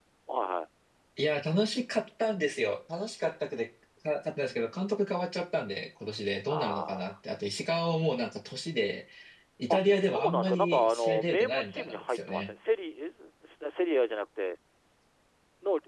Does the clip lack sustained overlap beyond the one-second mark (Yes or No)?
No